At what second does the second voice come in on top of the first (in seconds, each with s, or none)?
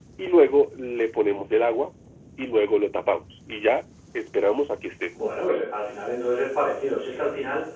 none